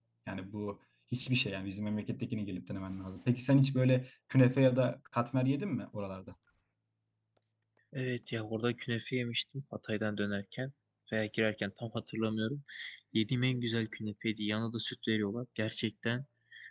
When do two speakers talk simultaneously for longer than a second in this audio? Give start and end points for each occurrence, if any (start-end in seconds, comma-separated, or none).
none